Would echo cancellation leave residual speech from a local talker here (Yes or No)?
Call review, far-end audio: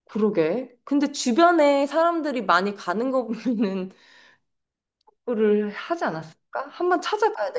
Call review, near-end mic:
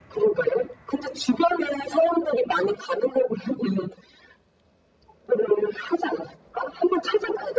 No